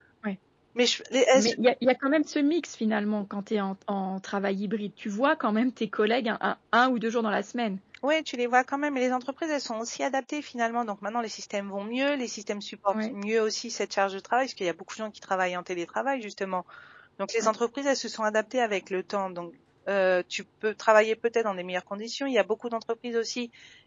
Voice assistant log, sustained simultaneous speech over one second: none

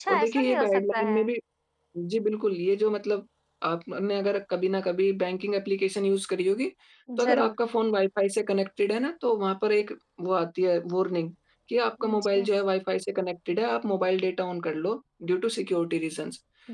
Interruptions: present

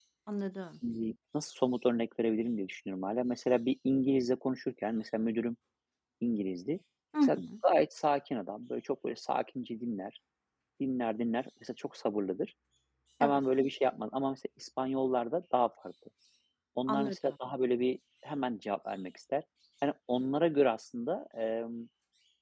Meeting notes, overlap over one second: none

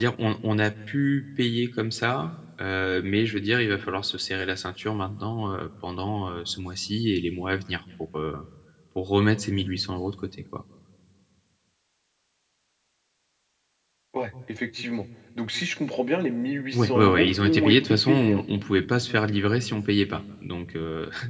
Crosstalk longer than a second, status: present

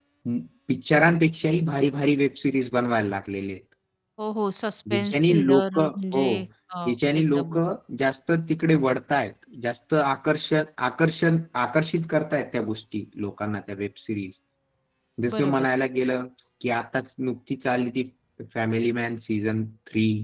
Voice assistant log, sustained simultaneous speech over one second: present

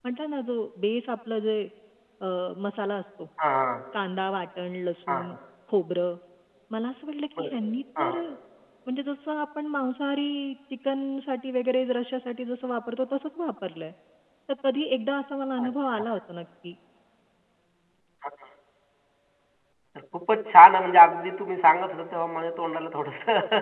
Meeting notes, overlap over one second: none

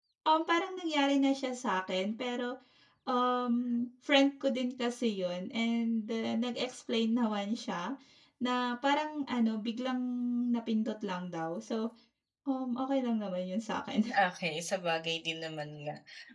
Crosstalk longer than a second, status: none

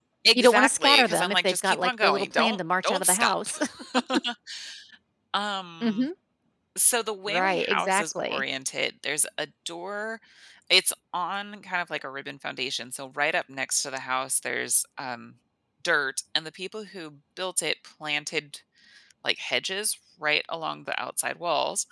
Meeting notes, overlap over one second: present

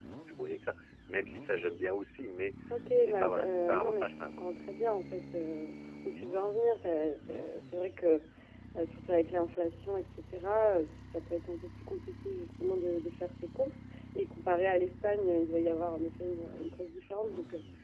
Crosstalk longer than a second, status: present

